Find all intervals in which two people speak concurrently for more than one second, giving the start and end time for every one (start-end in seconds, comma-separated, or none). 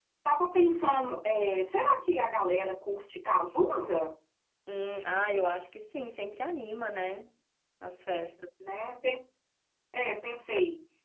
none